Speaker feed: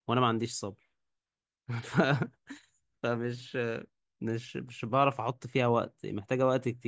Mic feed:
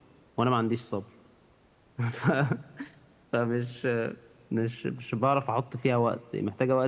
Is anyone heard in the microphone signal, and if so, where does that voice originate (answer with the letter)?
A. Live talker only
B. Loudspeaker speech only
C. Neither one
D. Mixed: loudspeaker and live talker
B